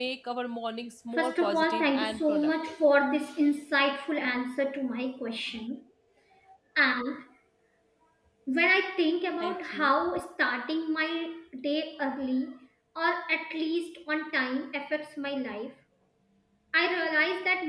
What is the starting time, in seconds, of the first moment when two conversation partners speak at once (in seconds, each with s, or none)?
1.1 s